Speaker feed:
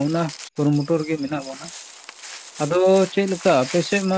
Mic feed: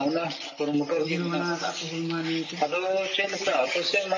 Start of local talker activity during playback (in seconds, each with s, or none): 1.0 s